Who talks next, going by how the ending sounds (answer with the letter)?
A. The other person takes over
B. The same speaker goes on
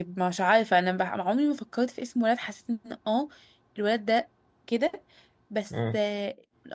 B